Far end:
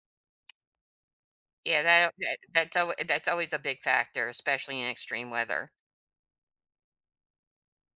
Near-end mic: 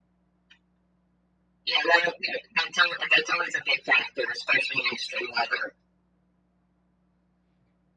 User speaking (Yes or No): No